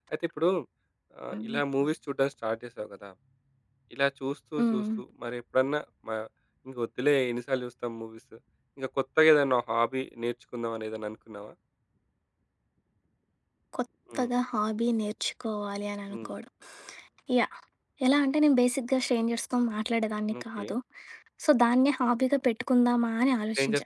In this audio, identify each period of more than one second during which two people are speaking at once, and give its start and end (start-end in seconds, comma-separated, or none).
none